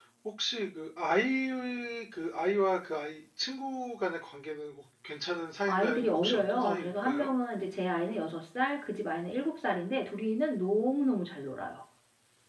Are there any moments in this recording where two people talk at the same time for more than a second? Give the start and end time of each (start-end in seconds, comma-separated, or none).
5.7-7.3